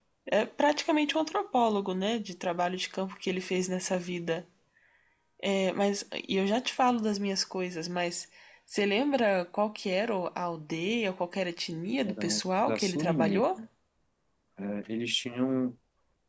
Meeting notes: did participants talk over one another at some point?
Yes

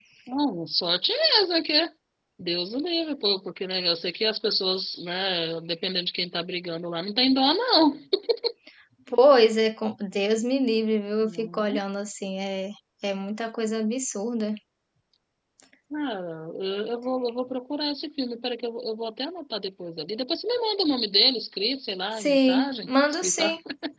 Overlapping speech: Yes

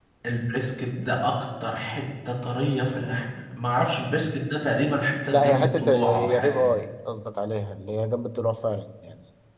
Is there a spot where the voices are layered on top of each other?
Yes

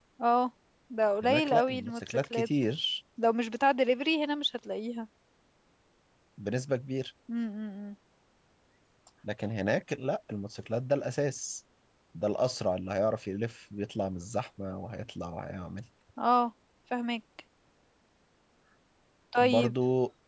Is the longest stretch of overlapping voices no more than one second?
No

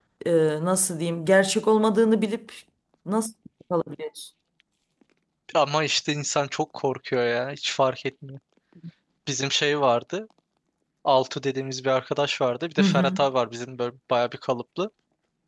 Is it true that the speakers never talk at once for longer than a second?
Yes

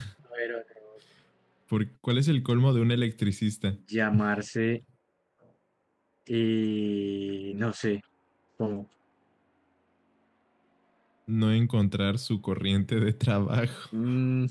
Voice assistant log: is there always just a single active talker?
Yes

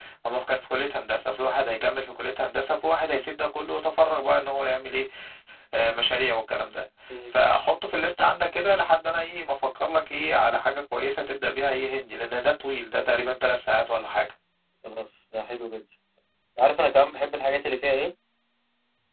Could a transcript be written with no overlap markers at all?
Yes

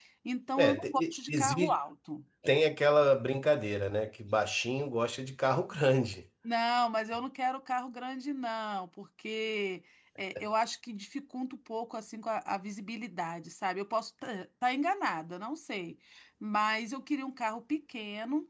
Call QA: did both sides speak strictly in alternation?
No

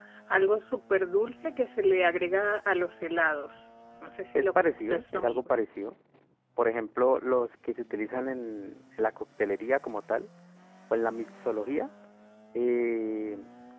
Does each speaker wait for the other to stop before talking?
No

